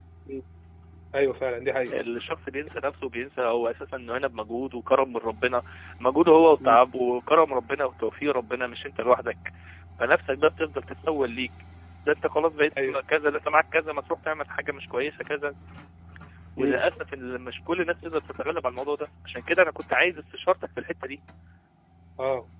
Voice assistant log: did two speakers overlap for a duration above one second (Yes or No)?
No